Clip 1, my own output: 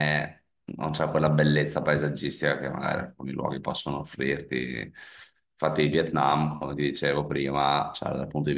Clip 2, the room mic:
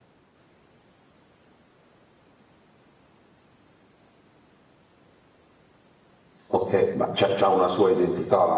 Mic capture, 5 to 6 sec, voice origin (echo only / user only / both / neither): neither